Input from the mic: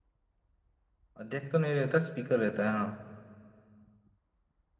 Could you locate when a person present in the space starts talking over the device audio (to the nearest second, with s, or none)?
1 s